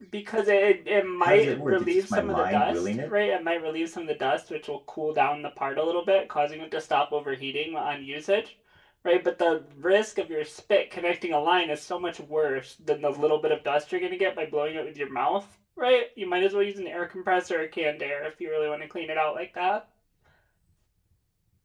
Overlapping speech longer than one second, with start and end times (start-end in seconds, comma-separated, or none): 1.2-3.1